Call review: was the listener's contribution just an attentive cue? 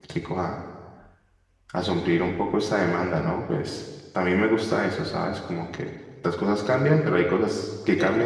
No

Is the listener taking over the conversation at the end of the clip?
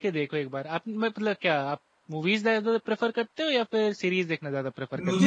Yes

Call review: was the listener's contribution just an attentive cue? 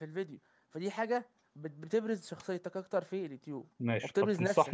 No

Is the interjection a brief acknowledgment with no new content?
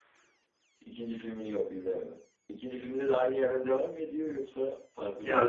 No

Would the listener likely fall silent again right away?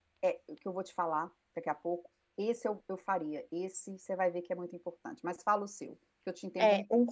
No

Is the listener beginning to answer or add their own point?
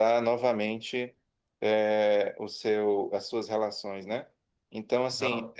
No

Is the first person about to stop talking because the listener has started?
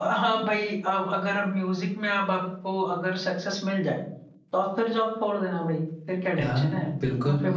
Yes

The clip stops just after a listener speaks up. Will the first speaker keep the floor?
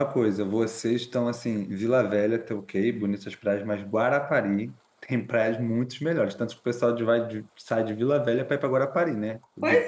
No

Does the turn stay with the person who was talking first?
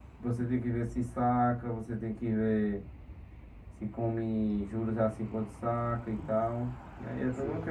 No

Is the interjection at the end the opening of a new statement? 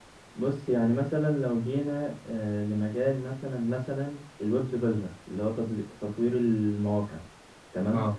No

